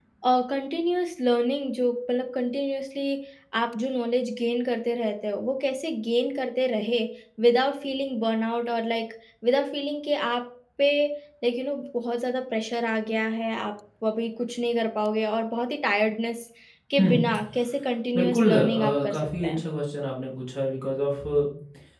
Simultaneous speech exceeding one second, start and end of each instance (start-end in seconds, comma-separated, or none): 18.1-19.6